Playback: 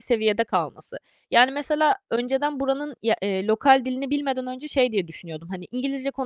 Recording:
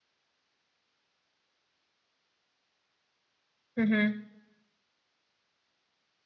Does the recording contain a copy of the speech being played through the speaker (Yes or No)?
No